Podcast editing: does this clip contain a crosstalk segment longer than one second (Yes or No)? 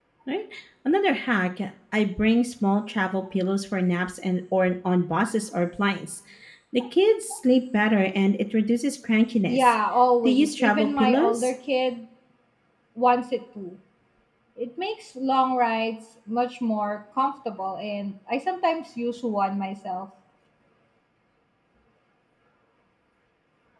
Yes